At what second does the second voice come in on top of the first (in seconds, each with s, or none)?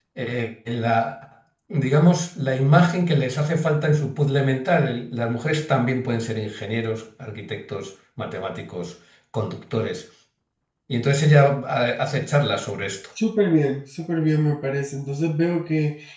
none